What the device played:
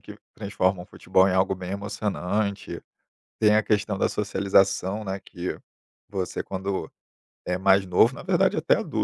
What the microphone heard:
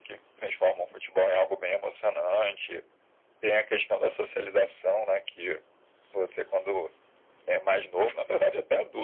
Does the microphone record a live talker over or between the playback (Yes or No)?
No